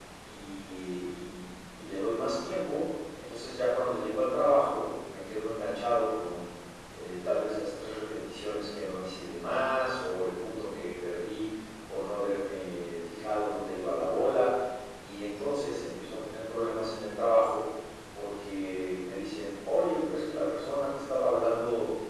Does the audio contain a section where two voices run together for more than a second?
No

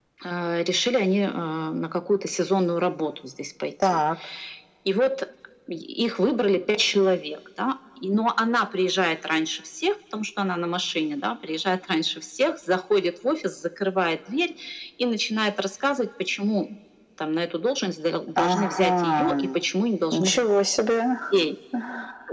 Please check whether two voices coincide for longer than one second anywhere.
Yes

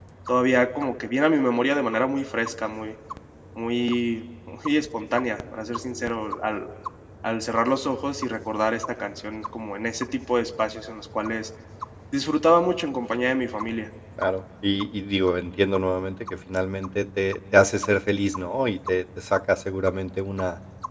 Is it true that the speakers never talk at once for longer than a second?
Yes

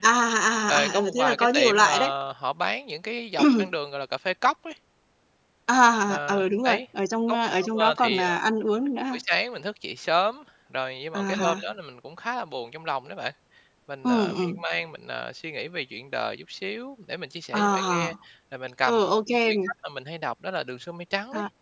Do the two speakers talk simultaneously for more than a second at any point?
Yes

